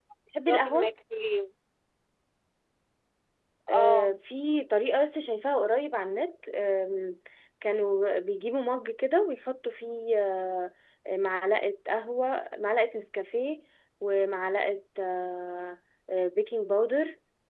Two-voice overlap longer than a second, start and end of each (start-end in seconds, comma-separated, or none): none